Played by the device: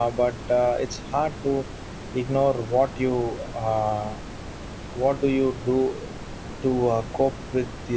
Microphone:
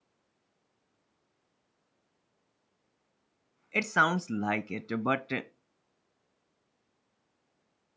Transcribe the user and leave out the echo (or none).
It sounds like it, but